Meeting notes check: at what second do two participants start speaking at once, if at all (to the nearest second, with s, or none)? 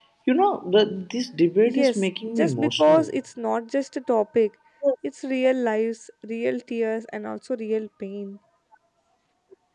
2 s